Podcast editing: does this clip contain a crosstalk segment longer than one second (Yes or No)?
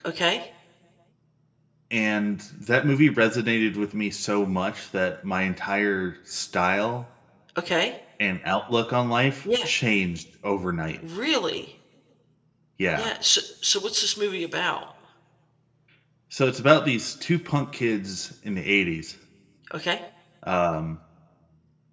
No